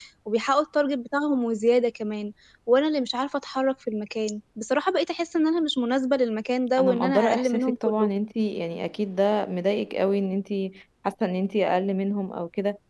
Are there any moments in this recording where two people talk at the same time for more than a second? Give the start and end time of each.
6.8-8.1

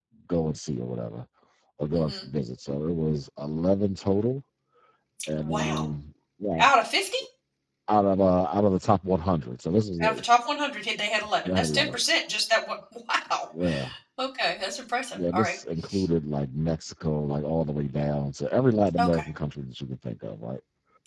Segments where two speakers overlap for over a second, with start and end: none

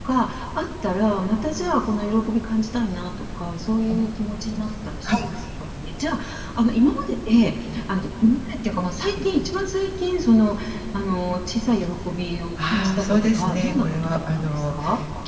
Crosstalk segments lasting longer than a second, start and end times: 12.6-14.7

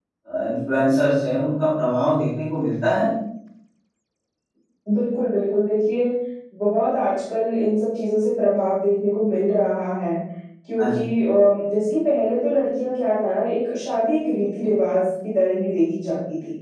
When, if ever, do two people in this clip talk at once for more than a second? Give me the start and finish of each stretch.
none

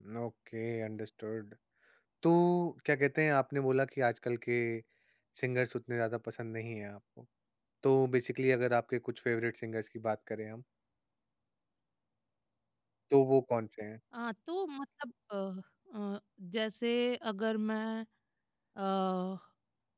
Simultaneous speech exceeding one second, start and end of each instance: none

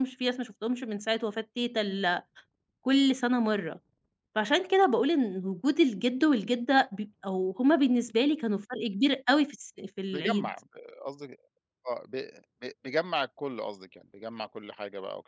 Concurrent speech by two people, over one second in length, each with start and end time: none

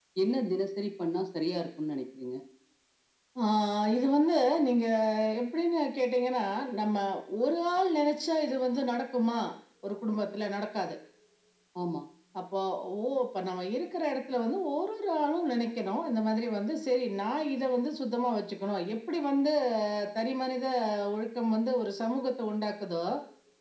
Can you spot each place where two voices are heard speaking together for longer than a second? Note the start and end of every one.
none

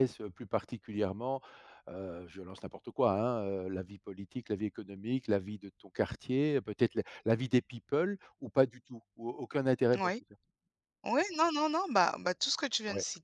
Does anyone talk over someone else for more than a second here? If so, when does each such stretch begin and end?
none

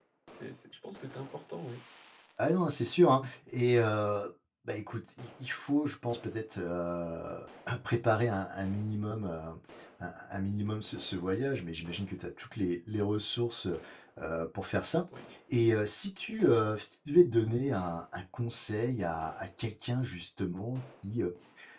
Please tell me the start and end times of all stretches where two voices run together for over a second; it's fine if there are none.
none

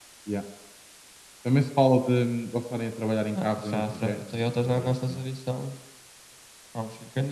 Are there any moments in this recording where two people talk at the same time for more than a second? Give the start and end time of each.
3.4-5.2

